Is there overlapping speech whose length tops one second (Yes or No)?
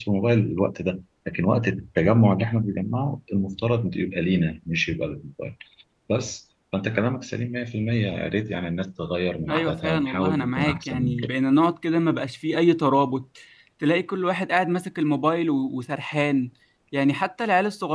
Yes